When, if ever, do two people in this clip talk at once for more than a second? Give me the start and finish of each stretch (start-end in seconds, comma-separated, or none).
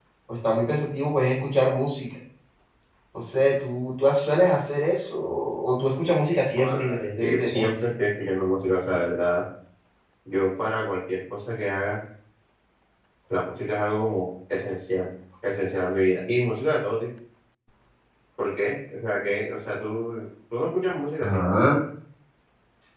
6.6-7.9